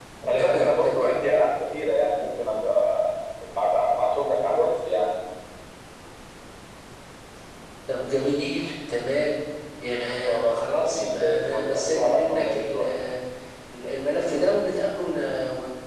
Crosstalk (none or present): present